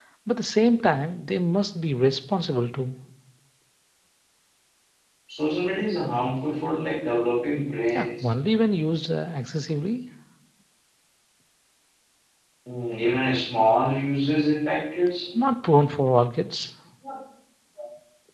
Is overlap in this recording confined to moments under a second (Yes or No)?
Yes